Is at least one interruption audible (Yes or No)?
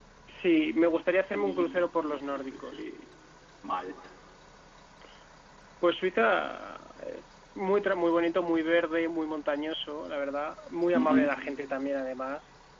Yes